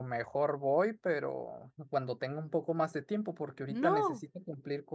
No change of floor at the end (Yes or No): Yes